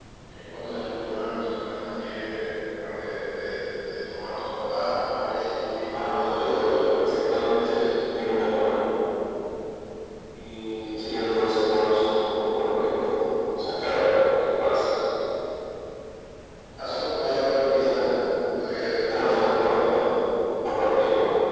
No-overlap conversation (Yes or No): No